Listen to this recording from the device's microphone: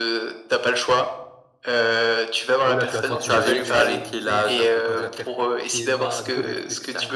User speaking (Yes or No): Yes